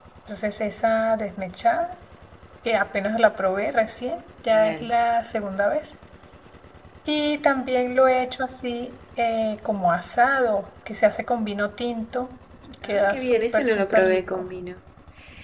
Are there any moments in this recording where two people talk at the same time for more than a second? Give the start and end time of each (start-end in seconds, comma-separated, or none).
12.9-14.4